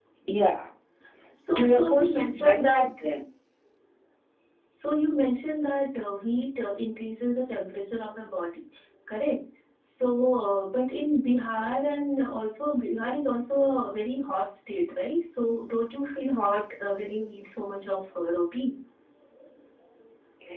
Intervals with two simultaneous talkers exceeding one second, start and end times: 1.6-2.9

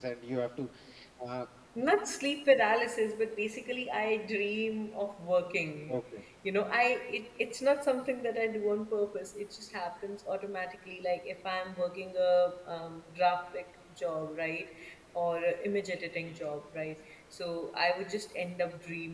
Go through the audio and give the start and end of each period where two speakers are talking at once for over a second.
none

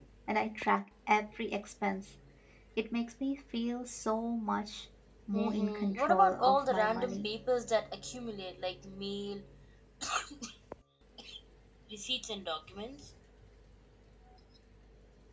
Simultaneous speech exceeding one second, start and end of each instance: 5.3-7.3

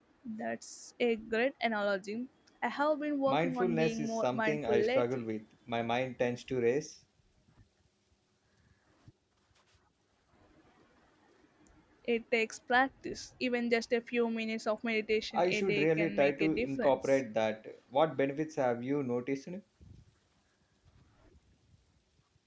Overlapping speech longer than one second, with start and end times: 3.3-5.2, 15.4-17.2

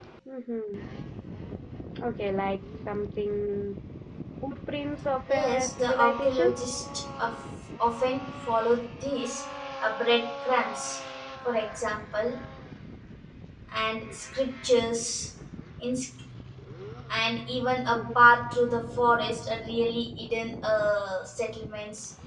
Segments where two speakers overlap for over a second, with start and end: 5.3-6.6

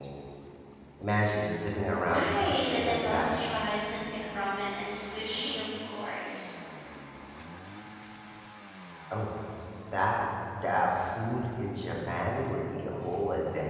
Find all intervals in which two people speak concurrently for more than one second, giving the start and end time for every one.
2.0-3.4

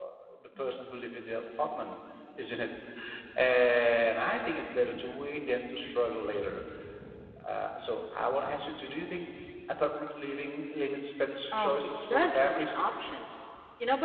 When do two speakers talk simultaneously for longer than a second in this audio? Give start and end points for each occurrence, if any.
11.5-12.8

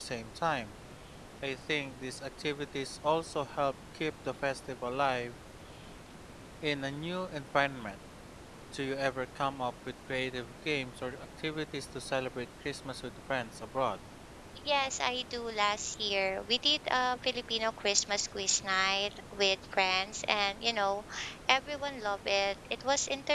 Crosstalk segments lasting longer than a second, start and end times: none

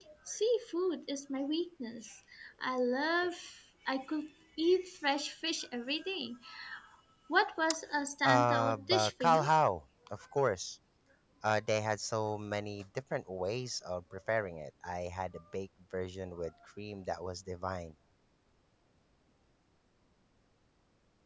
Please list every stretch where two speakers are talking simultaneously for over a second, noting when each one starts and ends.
8.2-9.5

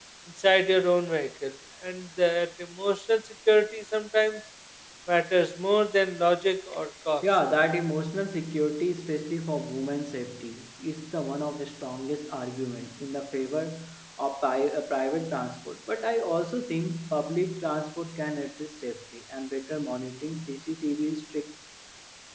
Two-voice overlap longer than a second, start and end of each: none

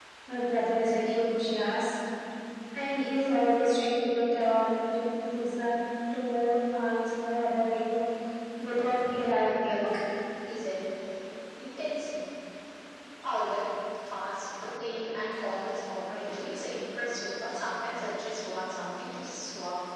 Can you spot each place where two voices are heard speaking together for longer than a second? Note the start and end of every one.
none

